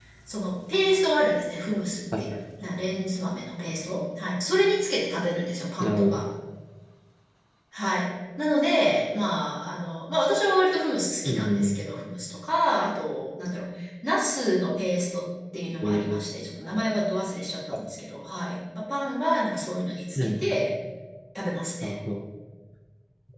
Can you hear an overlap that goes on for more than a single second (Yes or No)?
No